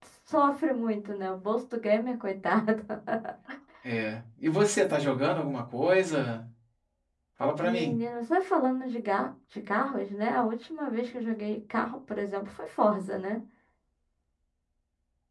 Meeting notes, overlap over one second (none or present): none